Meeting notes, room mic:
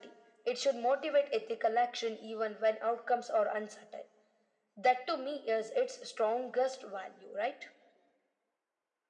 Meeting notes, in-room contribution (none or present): none